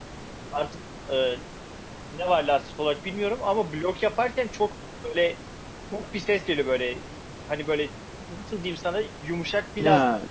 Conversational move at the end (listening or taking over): listening